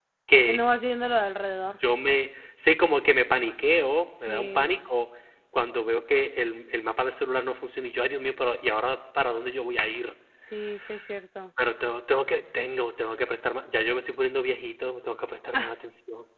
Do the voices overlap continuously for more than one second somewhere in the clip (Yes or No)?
No